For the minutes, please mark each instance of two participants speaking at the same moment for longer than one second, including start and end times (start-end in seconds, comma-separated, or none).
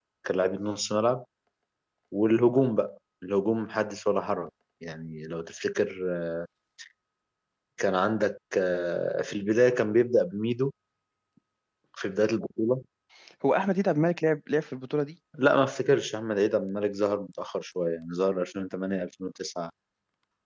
none